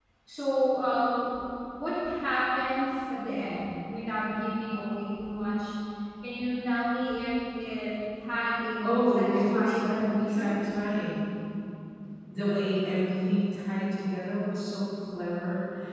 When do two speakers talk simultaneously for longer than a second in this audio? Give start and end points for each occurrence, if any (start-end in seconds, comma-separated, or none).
8.8-10.6